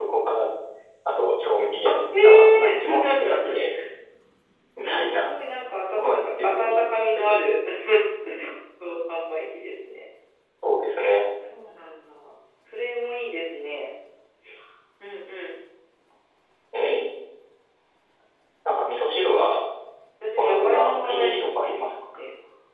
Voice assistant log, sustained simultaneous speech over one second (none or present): present